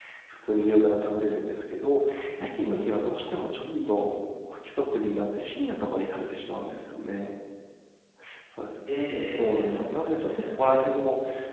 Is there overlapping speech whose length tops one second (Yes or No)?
Yes